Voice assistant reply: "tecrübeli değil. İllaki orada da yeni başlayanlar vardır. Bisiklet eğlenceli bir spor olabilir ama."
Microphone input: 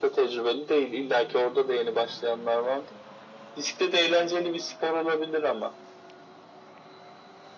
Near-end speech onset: none

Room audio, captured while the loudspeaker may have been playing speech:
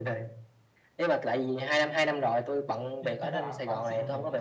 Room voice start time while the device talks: 3.0 s

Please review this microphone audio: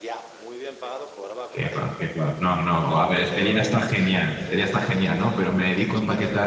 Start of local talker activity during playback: 1.5 s

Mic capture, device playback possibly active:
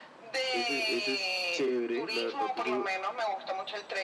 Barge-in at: 0.5 s

